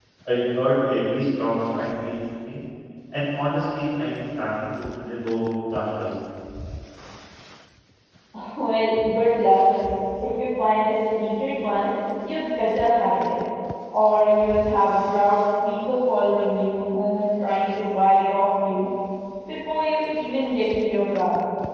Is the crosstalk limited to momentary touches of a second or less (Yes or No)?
Yes